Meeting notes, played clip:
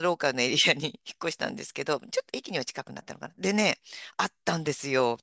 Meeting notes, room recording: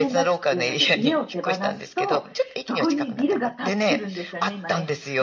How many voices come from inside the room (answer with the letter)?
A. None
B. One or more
B